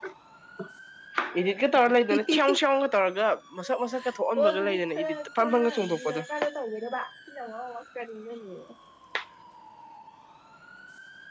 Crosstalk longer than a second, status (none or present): present